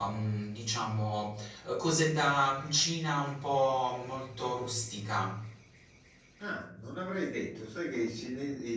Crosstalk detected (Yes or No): No